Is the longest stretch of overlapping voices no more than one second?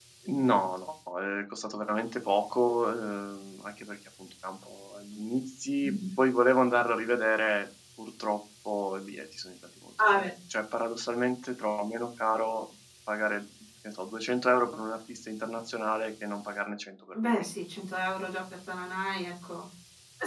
Yes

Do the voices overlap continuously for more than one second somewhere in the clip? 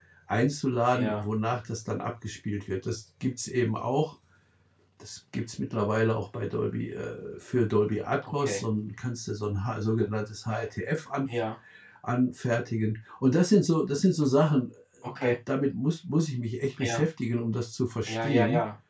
No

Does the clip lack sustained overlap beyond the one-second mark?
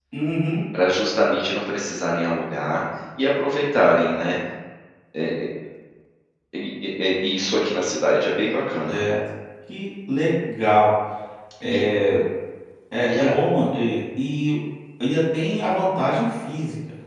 Yes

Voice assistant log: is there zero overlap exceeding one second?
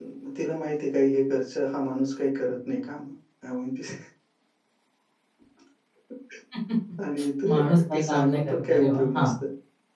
No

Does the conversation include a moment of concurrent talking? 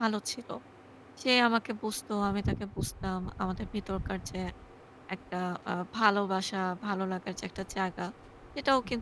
No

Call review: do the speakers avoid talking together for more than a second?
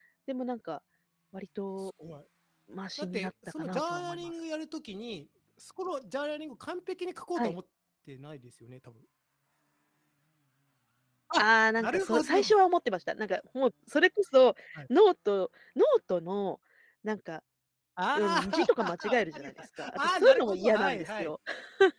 No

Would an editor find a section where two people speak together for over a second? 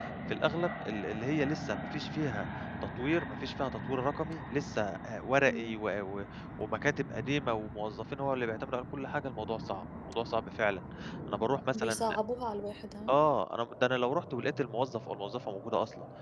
No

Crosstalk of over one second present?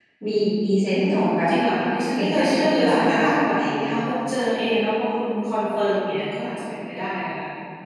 Yes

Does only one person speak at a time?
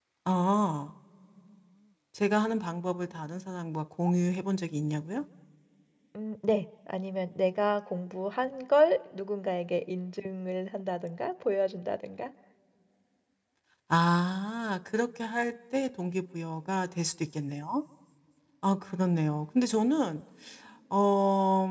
Yes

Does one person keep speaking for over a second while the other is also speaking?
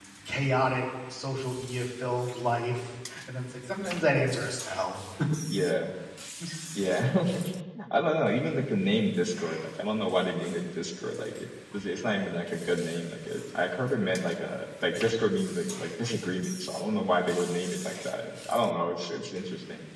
No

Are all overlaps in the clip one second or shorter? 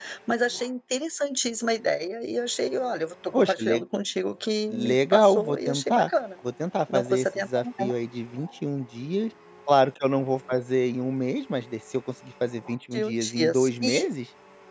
No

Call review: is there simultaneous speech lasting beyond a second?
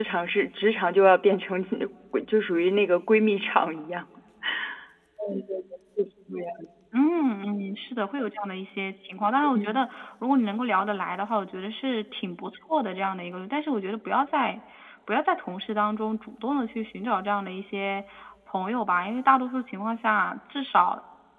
No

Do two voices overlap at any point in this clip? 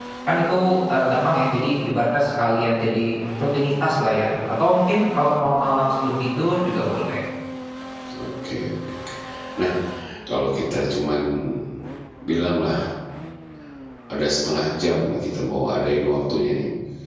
No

